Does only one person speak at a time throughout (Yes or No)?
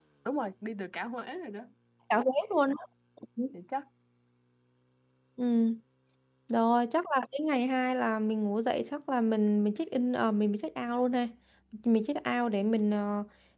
Yes